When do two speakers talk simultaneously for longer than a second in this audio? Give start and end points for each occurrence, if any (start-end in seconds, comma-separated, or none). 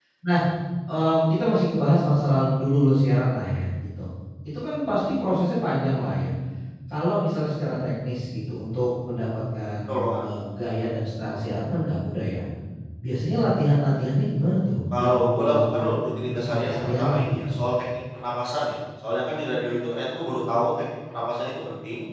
14.9-17.4